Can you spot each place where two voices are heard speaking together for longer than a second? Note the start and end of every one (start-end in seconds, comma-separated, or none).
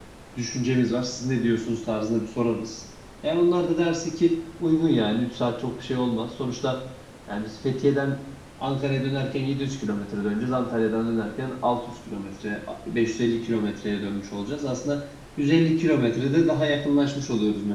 none